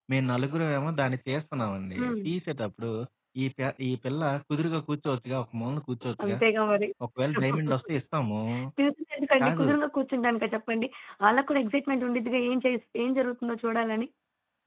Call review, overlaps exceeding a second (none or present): none